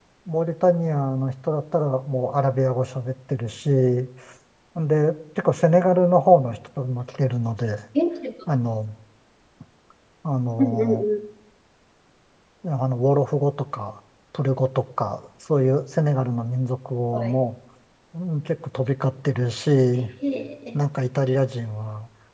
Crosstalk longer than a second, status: none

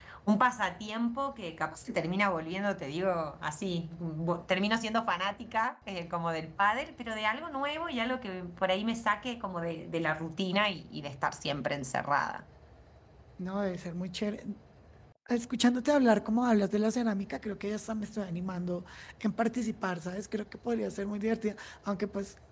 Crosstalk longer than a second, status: none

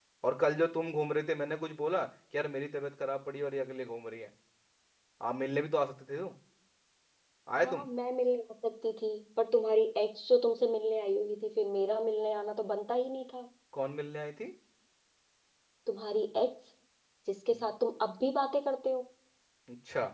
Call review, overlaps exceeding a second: none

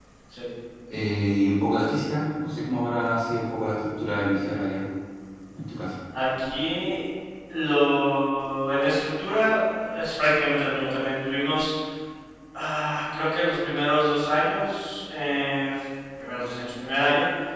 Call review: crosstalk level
none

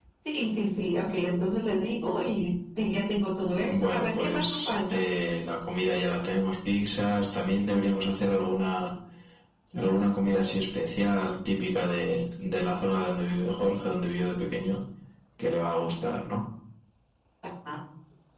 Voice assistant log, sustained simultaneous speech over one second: present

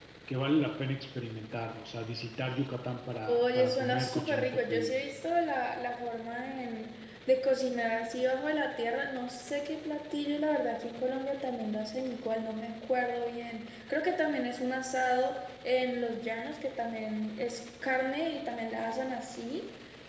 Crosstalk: present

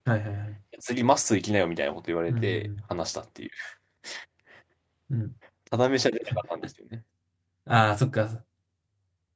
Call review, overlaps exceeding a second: none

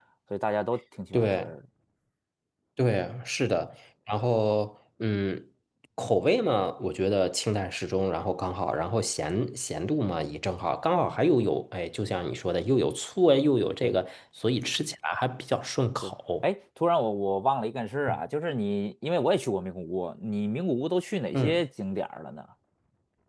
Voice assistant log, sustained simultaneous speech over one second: none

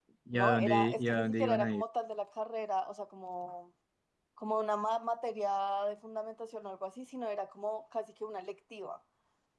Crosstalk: present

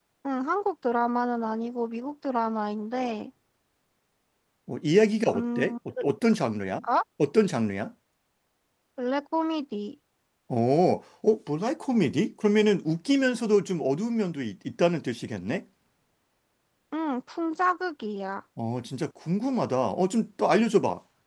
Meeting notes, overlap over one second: none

